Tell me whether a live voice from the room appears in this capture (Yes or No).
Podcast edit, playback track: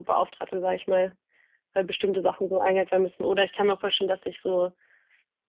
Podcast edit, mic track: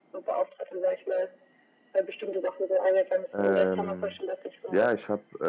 Yes